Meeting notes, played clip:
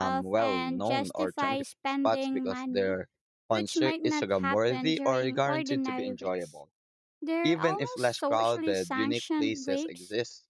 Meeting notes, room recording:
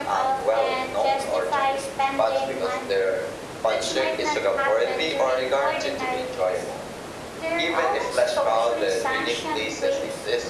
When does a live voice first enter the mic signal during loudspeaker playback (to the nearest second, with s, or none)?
none